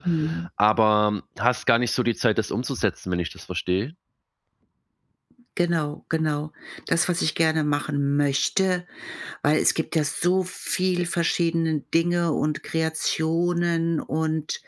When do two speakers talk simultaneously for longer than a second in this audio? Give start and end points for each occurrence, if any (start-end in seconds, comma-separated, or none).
none